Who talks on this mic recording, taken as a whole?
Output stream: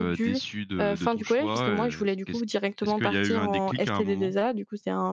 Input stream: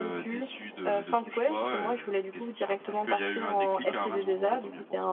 both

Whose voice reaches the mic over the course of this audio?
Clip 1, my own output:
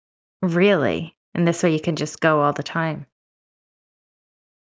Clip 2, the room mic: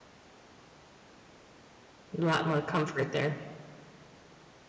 user only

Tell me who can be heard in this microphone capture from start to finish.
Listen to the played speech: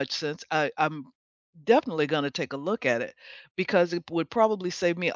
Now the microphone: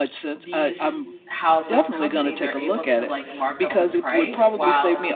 both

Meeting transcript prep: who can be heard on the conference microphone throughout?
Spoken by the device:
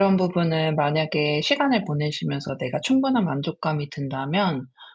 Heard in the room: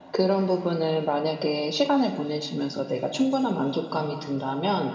echo only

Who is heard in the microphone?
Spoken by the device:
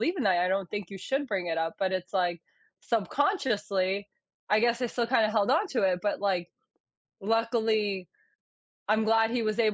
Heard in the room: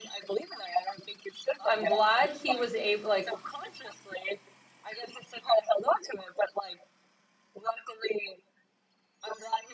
both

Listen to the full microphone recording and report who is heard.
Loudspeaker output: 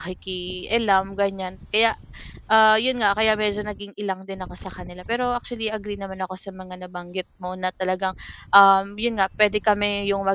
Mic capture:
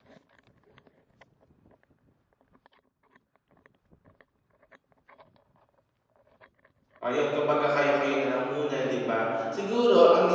user only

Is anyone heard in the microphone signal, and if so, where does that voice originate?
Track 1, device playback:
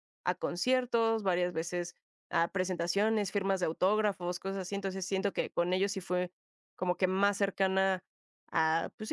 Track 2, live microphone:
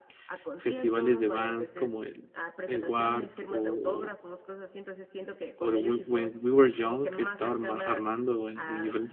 both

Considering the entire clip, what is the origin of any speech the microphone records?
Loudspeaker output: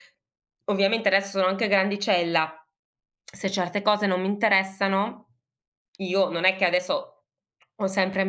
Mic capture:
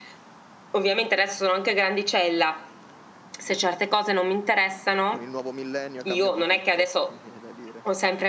both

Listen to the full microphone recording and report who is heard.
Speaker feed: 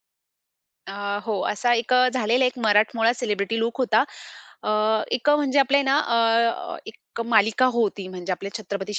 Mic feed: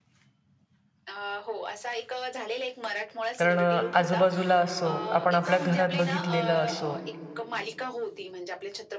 both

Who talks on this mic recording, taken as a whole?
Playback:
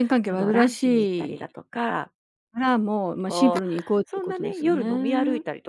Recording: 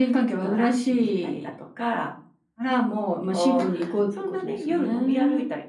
echo only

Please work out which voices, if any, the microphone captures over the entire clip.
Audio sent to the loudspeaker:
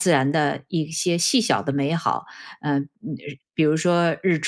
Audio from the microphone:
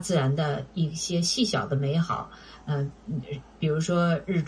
echo only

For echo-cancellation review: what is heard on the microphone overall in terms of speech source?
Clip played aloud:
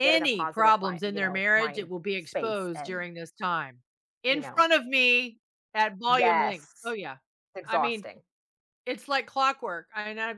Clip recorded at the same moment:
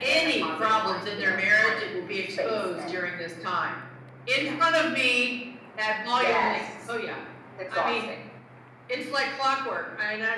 echo only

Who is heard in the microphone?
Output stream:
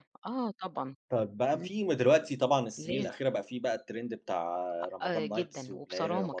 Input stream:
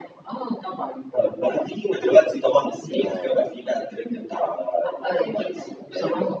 both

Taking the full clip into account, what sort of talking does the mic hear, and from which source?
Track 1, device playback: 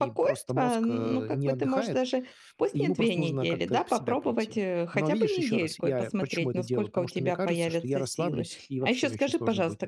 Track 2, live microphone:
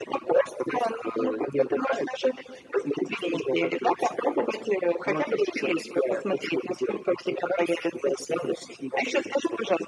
echo only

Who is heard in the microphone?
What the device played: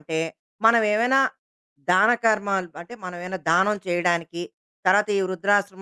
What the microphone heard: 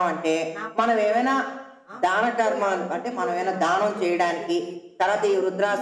both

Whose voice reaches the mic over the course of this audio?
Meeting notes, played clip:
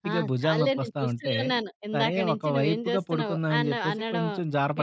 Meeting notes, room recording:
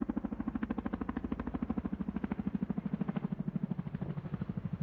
neither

